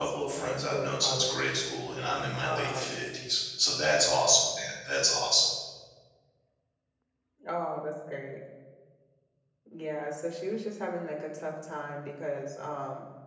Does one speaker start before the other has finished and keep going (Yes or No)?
Yes